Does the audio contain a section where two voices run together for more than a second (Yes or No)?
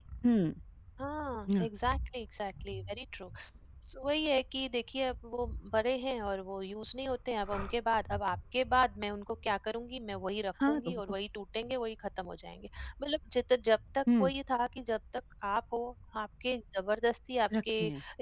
No